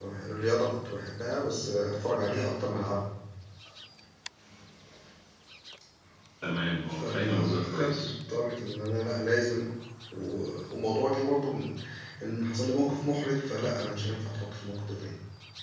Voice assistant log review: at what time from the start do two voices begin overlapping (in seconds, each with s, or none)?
6.9 s